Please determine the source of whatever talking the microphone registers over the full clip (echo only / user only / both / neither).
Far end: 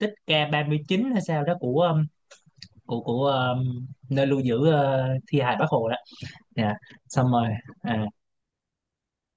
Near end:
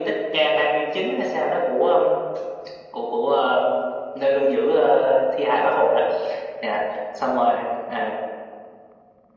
echo only